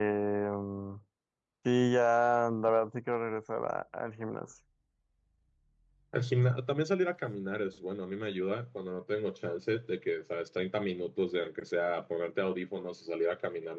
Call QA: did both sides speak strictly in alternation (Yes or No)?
Yes